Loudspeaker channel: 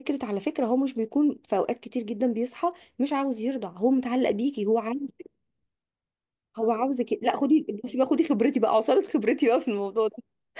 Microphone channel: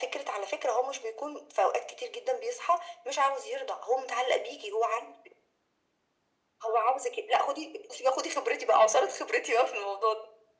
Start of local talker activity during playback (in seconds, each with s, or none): none